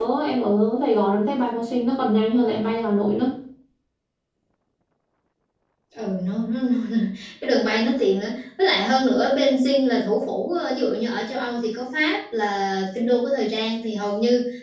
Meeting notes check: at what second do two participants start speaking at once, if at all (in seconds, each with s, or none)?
none